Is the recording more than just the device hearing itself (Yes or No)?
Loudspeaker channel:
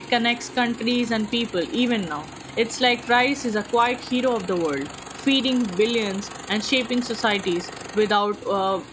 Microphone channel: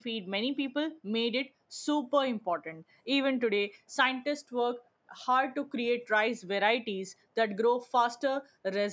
Yes